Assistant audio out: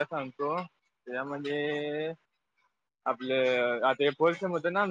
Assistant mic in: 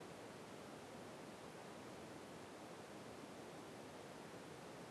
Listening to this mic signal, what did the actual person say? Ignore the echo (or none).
none